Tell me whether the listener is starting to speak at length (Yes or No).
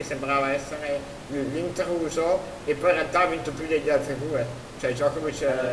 No